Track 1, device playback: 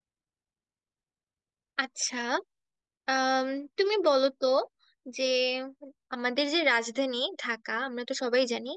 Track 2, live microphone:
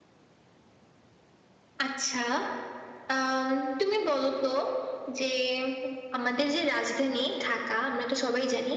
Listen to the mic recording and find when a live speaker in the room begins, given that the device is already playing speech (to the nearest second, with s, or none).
none